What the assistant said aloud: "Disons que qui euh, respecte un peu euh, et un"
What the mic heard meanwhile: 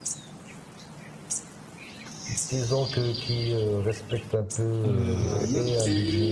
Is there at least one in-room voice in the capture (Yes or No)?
Yes